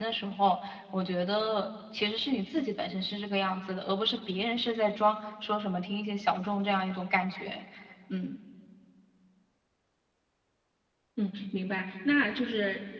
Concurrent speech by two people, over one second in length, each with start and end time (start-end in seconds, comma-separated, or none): none